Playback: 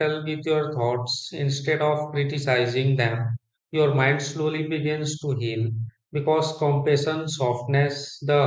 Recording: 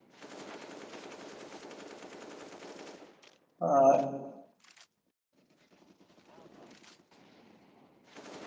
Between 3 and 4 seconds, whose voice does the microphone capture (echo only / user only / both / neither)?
user only